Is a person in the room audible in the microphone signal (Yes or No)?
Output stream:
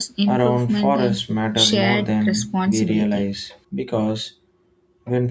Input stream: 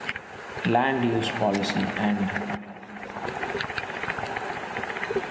Yes